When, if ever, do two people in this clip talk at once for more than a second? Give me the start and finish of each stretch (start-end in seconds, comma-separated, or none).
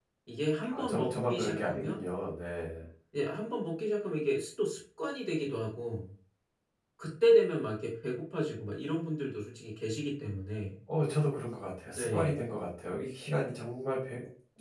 0.7-2.0